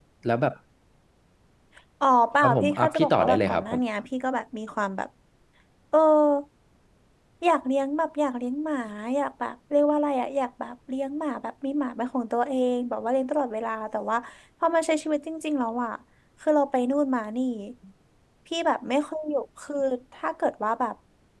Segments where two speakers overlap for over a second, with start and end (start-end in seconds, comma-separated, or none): 2.4-3.8